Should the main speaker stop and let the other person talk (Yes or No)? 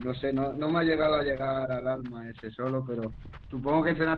No